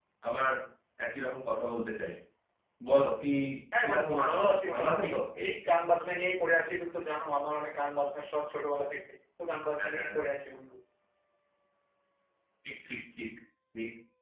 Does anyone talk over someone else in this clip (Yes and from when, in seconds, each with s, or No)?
Yes, from 3.8 s